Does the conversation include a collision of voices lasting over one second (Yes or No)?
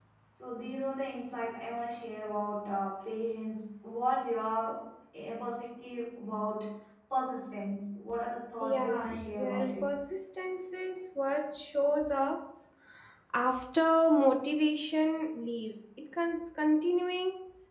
Yes